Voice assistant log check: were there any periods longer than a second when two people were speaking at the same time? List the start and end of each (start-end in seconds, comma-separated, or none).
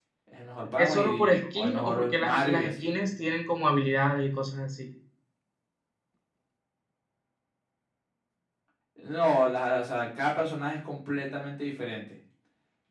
0.8-2.9